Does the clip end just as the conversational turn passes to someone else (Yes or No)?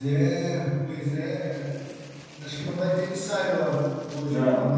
Yes